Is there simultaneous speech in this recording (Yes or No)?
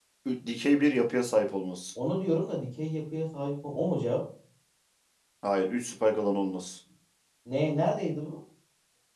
No